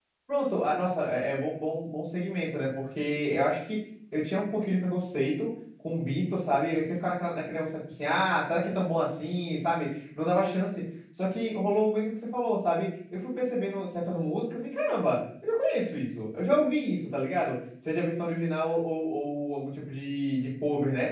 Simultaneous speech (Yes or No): No